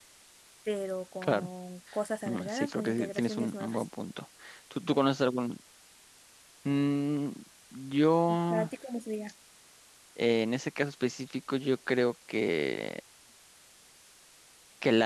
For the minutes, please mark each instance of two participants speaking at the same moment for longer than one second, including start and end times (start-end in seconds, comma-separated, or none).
2.3-3.8